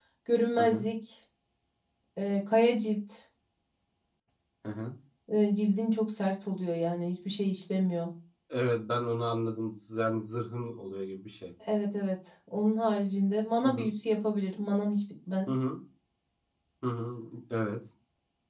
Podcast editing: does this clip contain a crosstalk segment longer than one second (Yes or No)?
No